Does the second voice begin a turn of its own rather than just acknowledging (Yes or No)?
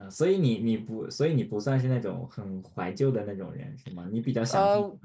Yes